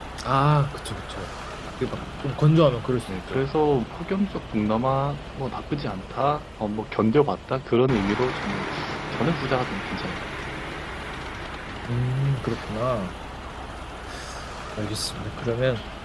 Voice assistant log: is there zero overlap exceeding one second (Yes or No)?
Yes